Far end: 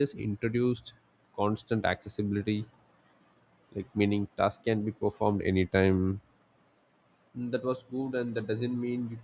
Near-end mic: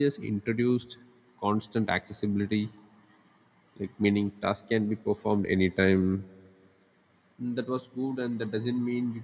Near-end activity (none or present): none